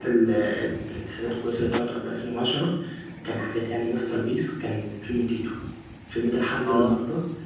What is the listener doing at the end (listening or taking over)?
listening